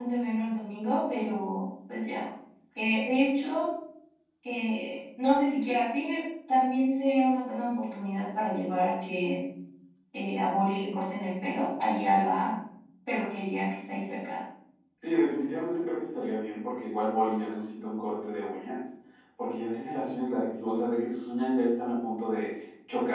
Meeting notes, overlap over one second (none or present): none